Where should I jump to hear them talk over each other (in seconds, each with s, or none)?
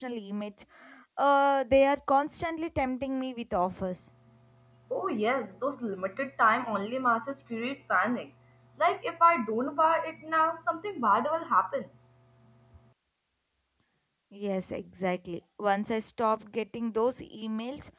none